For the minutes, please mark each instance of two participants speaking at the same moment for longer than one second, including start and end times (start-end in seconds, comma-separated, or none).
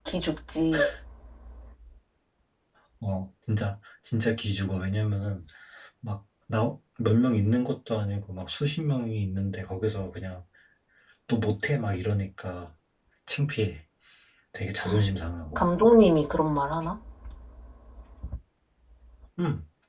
none